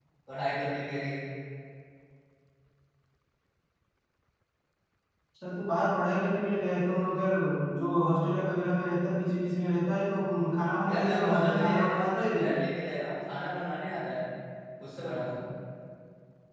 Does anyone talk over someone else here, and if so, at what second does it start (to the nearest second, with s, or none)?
11 s